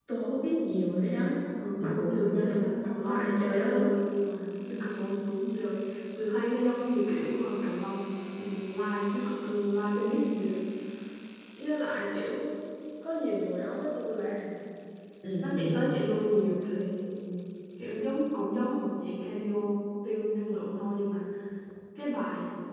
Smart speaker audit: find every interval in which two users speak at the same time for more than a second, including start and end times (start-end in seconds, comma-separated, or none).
1.8-3.9